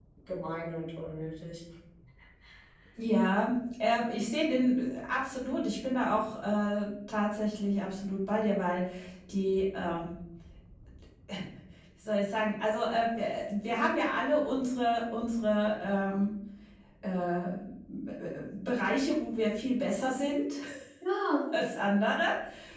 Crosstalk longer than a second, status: none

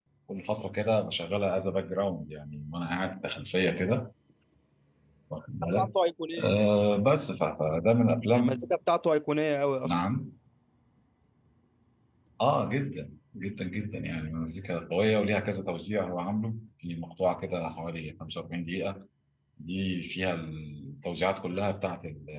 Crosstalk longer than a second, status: none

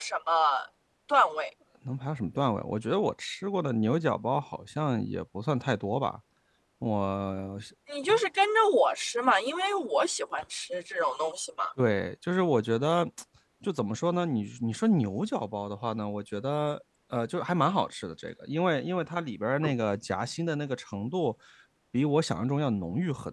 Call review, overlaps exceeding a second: none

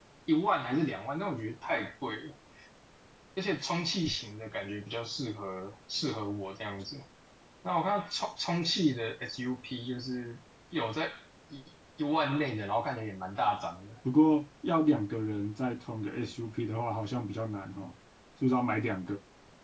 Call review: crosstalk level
none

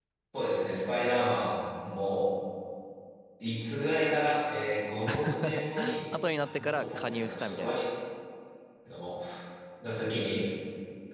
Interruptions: present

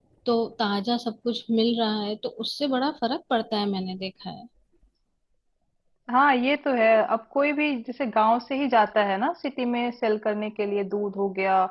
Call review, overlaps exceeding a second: none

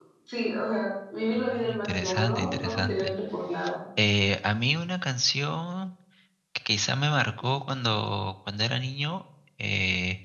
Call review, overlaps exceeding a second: present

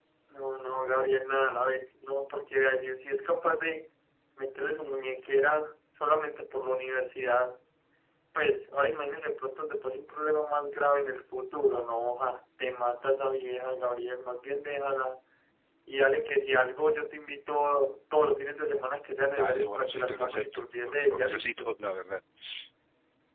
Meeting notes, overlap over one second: present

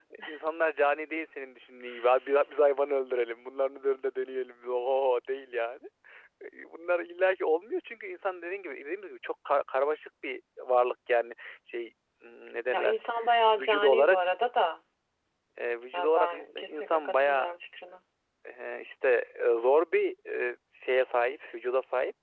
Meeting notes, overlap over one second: present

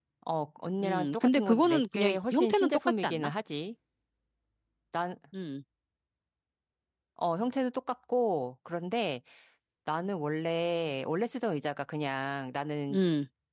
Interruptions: present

